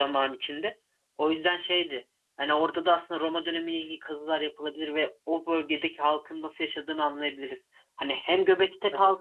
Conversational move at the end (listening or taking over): listening